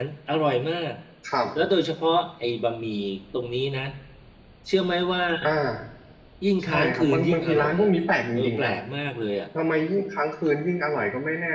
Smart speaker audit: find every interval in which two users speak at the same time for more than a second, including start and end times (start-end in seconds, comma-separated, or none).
6.6-7.9